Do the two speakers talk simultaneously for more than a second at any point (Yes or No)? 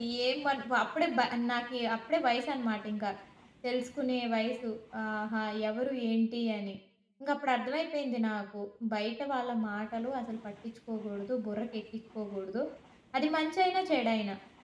No